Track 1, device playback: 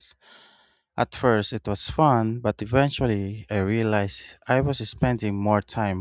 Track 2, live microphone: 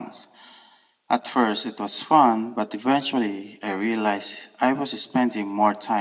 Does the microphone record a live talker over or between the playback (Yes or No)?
No